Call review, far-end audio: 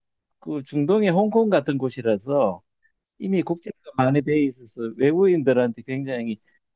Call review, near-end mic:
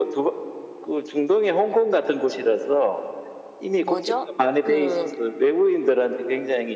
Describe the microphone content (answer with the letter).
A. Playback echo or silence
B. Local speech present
B